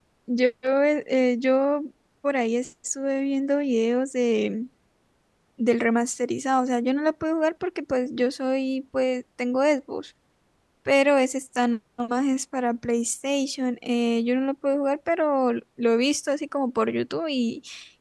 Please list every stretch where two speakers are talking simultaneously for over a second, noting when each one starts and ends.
none

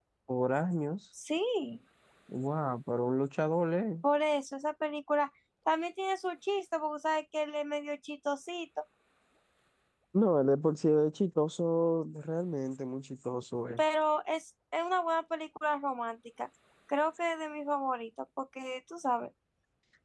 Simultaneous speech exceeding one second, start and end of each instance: none

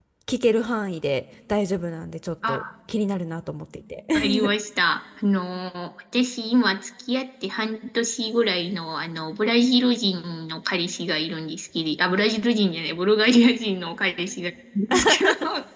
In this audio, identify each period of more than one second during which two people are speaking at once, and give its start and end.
none

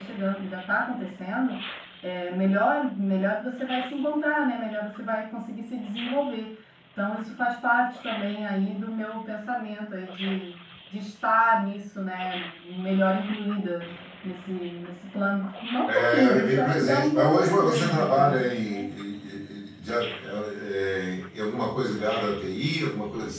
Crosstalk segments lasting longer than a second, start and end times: 15.9-18.4

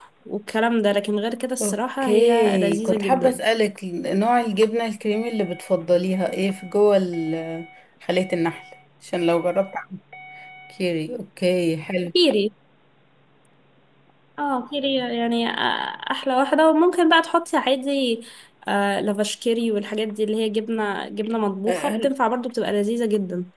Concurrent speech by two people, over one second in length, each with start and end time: 1.6-3.4

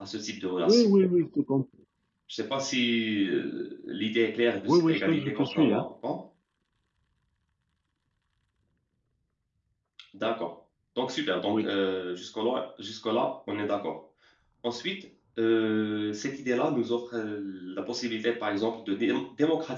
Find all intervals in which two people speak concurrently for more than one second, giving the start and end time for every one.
4.7-5.9

